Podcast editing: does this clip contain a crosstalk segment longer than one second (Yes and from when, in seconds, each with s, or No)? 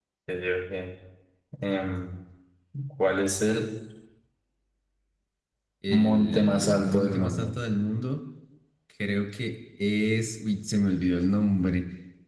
Yes, from 5.9 s